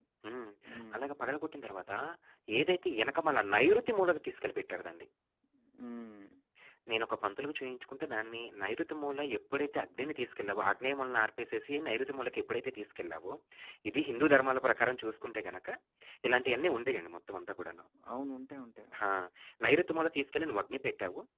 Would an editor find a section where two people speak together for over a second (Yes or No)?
No